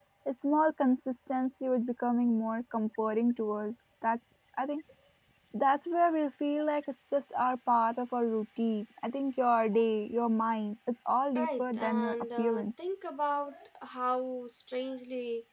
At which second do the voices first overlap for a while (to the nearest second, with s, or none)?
11 s